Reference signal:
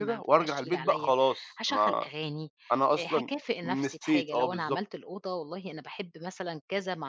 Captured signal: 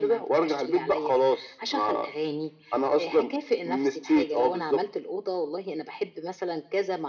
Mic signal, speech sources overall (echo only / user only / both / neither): echo only